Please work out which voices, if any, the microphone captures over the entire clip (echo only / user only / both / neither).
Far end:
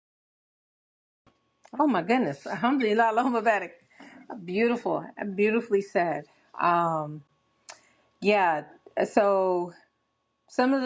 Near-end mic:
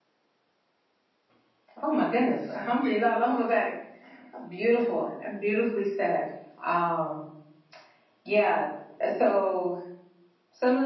echo only